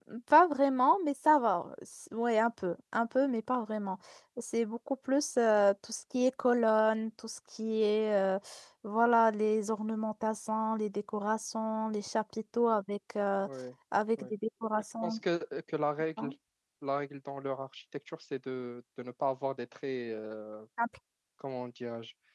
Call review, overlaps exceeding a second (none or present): none